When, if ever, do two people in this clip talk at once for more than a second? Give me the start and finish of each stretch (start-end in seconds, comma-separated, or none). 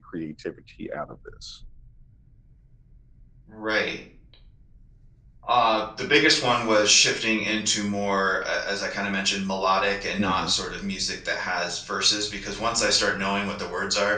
none